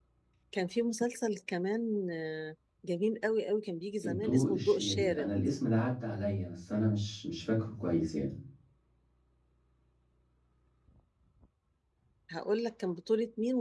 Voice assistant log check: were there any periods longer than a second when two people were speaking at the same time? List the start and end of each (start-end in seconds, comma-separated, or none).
4.0-5.3